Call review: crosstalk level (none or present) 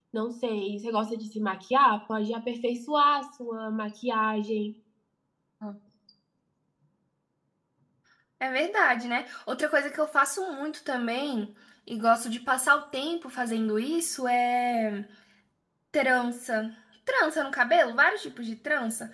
none